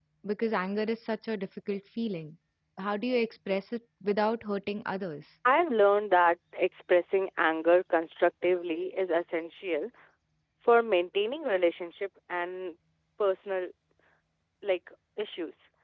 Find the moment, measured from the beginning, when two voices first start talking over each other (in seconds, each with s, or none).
none